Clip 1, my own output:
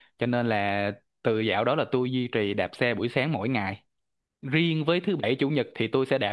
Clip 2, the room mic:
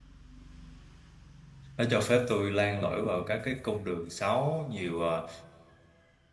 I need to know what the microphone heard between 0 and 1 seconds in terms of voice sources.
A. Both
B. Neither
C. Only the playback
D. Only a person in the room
B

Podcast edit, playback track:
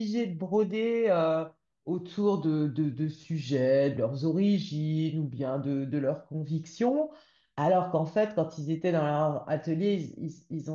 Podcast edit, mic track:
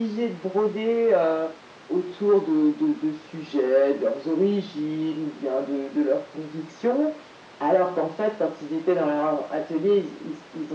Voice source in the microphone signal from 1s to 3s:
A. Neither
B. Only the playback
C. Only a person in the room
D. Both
B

